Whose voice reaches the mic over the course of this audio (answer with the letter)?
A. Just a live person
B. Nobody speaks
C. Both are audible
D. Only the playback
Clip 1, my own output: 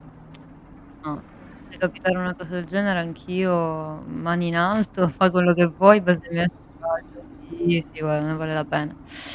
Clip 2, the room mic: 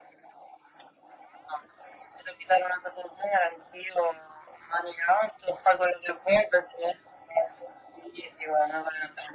D